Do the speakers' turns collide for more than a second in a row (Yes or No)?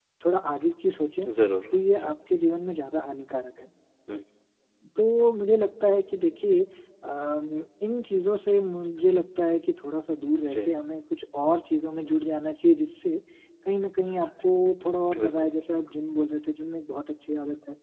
No